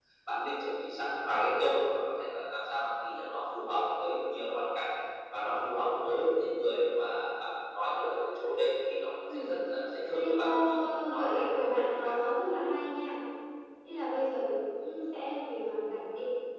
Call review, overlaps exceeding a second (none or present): present